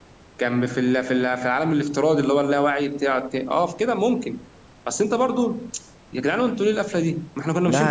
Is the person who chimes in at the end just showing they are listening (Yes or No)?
No